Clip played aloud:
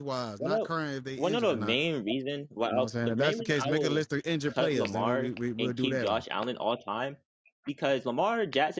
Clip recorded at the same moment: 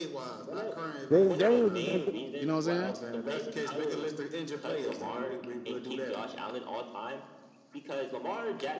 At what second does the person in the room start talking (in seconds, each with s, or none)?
1.1 s